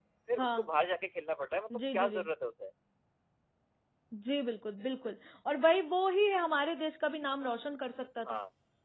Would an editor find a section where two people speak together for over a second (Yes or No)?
No